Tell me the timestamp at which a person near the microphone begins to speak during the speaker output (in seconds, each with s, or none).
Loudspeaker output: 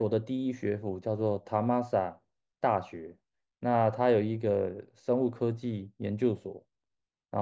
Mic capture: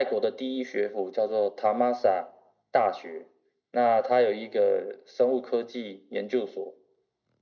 none